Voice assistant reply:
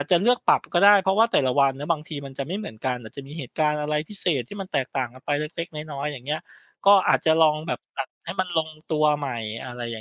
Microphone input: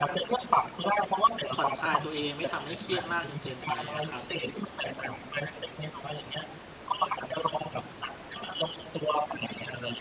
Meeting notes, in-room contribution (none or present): present